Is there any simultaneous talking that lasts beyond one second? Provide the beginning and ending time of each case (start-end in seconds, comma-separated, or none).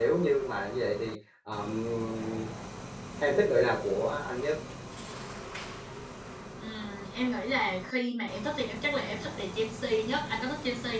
none